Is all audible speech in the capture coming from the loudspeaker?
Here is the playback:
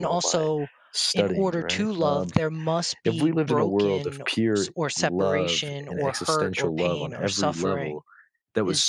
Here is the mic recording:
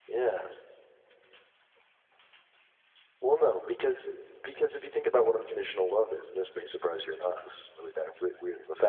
No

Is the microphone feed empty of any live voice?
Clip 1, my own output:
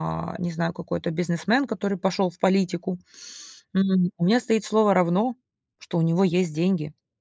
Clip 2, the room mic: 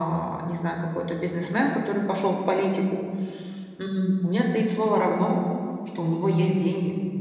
Yes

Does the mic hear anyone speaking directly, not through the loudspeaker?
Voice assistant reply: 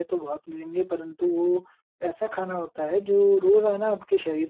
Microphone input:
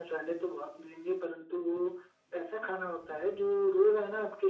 No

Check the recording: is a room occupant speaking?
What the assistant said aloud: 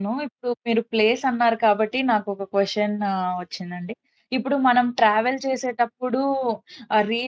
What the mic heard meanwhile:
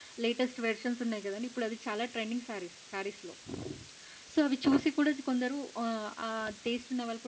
Yes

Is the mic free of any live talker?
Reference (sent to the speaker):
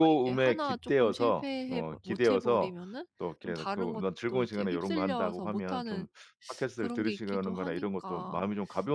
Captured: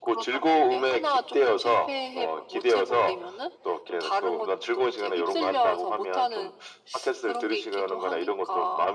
Yes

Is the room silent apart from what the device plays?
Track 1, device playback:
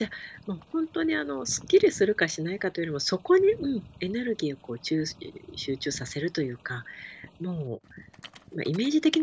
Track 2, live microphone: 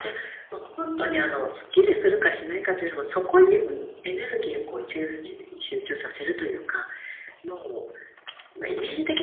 Yes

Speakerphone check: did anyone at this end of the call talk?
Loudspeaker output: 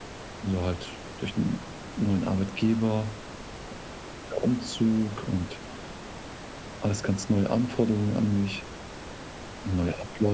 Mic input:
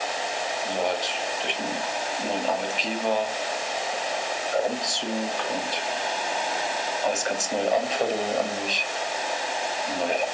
No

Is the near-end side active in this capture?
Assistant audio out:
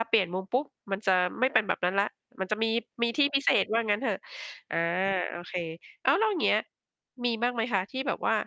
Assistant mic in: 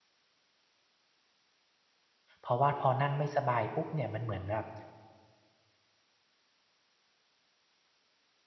Yes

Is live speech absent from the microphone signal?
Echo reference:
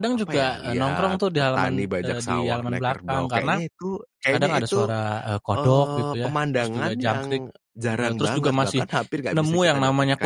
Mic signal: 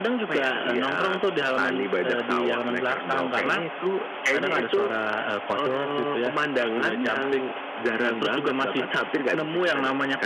Yes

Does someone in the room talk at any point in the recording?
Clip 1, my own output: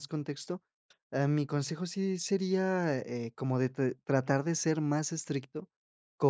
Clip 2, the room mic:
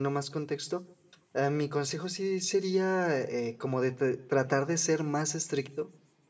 No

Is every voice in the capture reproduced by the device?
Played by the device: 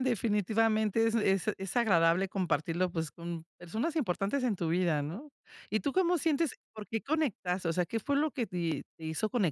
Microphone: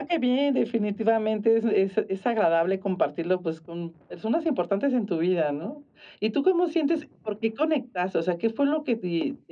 Yes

